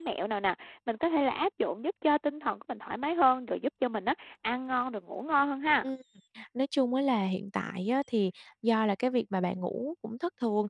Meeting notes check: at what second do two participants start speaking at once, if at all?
none

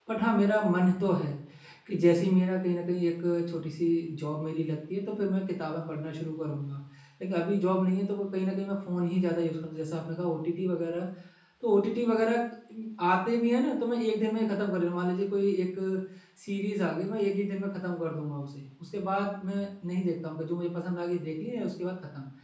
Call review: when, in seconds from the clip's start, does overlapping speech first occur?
none

